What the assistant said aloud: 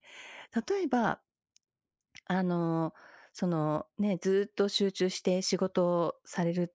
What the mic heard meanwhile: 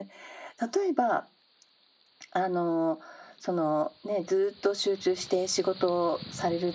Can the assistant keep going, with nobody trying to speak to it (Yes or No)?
Yes